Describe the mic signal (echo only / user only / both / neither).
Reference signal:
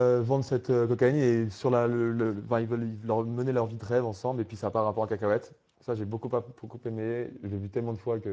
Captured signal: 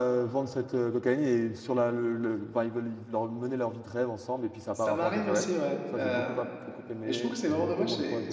both